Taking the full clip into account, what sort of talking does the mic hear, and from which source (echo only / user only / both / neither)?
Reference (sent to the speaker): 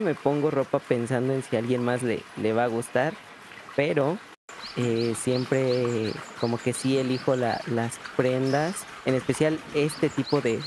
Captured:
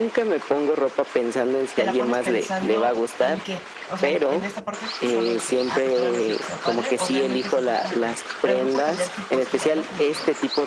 both